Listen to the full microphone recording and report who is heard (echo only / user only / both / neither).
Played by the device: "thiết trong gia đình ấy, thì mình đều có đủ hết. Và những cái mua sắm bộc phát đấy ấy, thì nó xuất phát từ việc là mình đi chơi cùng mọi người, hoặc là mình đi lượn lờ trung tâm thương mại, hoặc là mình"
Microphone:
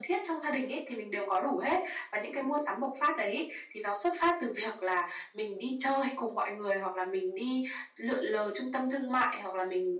echo only